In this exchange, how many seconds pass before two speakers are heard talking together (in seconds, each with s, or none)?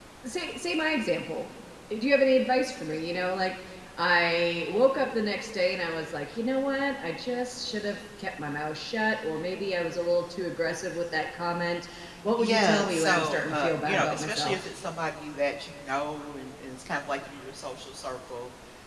12.4 s